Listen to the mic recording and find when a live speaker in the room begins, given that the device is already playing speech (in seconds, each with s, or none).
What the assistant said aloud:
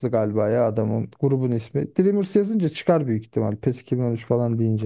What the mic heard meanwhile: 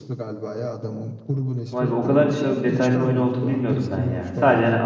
1.7 s